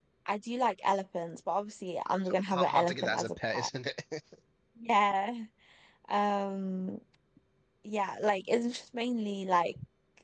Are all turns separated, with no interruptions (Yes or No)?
No